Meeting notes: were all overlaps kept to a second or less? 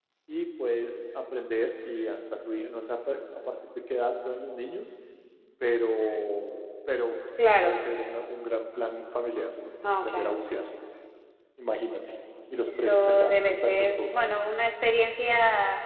No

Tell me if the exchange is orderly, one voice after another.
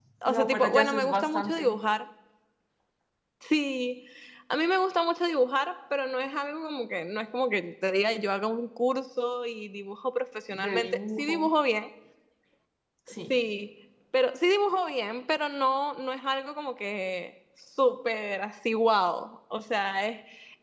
No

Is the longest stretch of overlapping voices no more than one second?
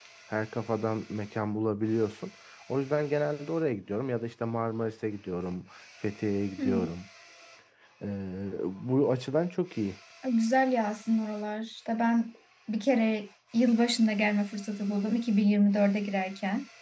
Yes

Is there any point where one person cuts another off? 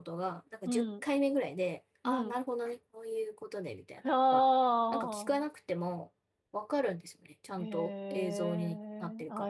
Yes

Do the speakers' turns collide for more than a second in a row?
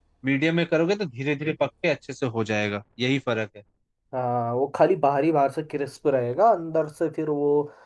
No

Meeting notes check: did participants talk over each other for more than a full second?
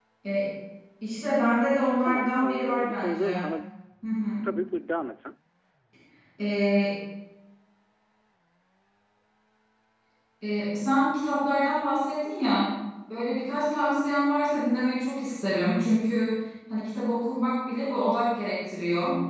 Yes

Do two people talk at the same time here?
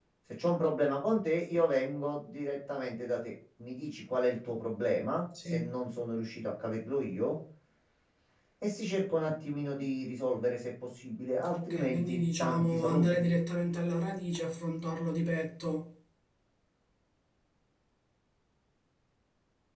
Yes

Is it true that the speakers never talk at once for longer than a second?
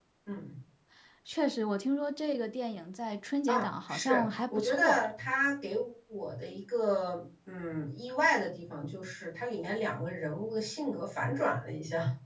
No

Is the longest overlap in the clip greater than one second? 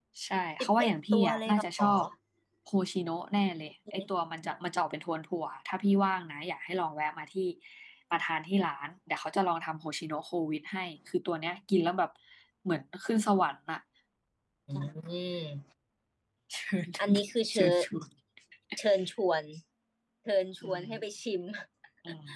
Yes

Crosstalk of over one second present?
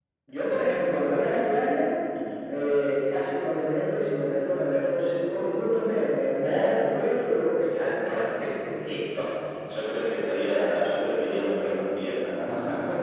No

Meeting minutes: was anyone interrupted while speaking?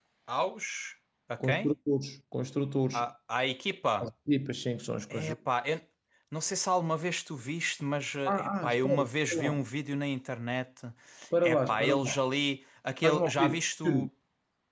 Yes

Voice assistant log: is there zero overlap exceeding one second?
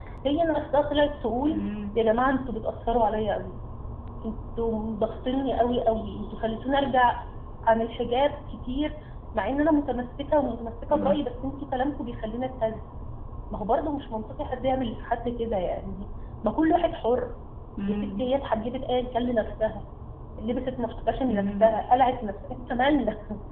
Yes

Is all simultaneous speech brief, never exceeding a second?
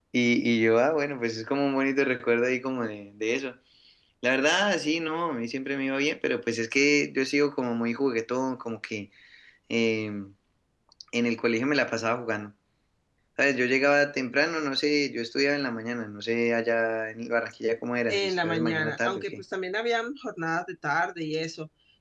No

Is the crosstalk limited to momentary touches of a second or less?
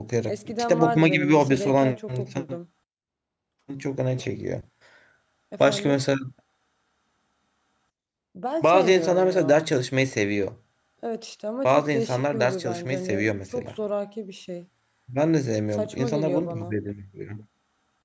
No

